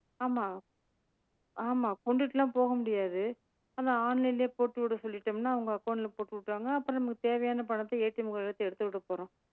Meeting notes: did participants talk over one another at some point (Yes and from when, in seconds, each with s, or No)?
No